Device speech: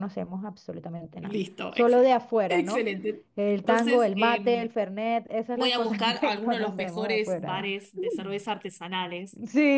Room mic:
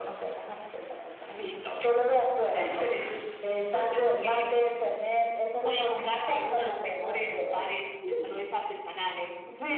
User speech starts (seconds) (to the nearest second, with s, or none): none